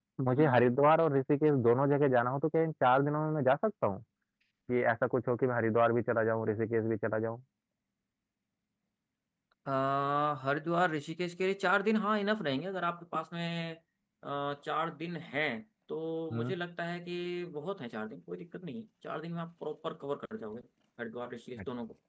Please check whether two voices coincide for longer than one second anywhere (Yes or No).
No